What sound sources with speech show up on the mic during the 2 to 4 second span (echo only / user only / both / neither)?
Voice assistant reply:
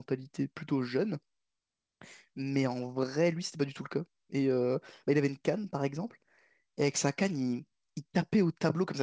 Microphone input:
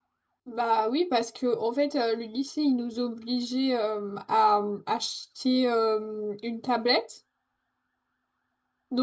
user only